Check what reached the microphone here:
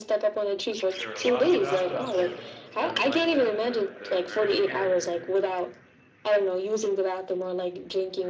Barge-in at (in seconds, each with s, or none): 1.0 s